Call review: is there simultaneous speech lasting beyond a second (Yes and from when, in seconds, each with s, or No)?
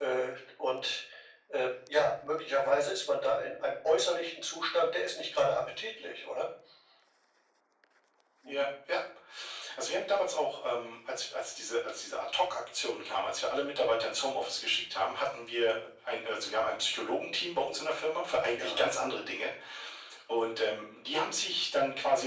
No